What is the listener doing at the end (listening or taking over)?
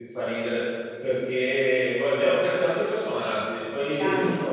listening